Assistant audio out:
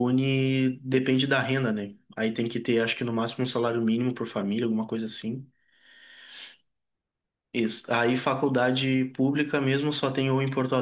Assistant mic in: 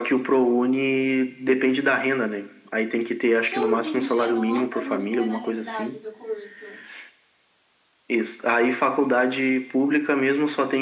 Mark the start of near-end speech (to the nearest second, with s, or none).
3 s